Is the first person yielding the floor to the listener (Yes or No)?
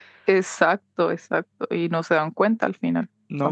Yes